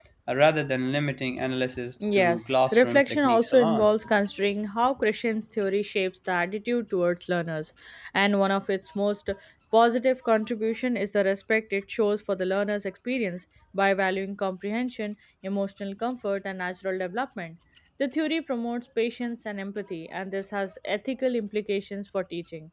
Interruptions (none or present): present